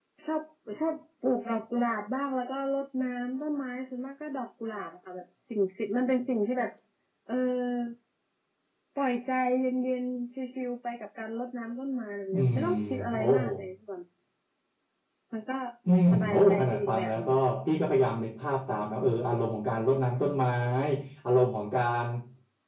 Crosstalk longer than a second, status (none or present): present